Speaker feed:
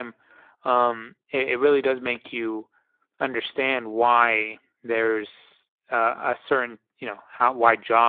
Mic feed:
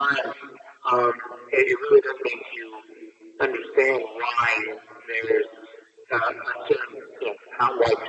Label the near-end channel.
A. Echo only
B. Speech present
A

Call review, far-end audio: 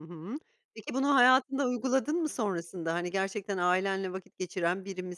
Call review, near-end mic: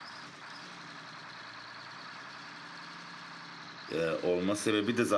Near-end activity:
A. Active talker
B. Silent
A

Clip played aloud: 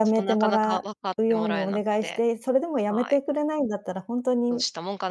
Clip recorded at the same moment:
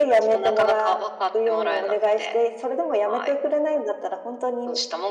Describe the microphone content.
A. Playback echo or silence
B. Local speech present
A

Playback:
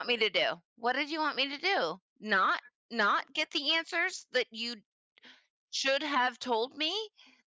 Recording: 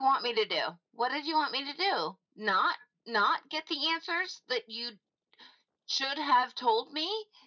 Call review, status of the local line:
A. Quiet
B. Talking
A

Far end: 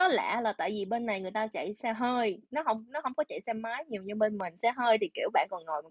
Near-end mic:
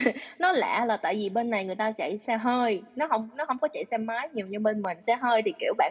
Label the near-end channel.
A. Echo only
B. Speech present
A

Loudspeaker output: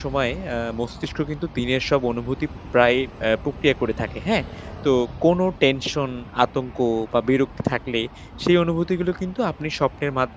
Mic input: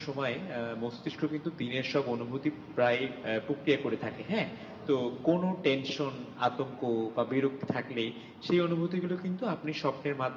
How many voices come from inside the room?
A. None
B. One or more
A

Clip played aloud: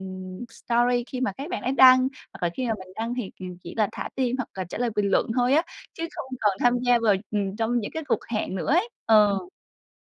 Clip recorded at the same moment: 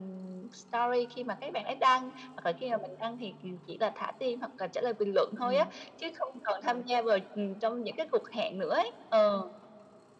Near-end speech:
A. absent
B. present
B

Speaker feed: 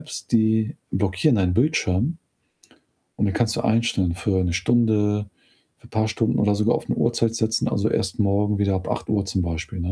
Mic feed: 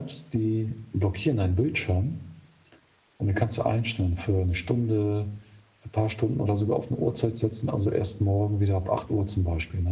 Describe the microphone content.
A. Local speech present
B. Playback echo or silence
B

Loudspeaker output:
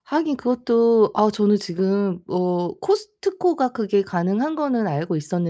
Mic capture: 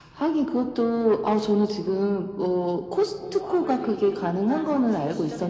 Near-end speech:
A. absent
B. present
B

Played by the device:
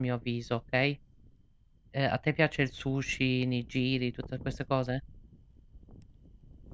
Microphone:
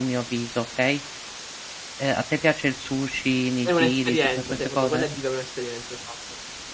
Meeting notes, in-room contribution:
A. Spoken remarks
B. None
A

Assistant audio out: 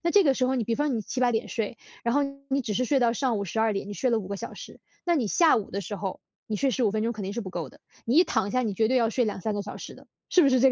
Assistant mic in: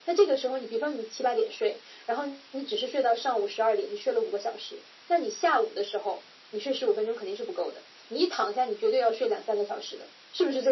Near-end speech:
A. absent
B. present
A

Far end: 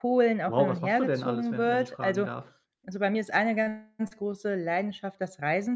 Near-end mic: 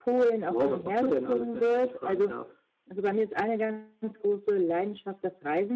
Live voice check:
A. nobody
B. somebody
A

